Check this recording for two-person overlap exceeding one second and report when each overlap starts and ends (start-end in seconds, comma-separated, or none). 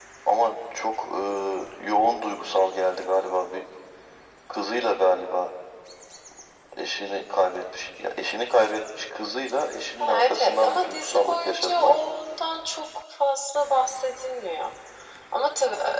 10.0-12.0